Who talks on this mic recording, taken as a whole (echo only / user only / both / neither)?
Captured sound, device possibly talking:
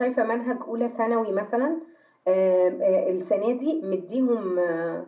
user only